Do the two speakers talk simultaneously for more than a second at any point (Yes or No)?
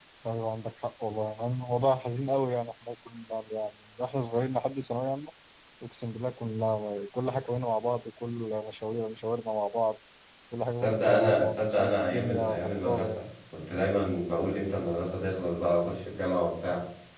Yes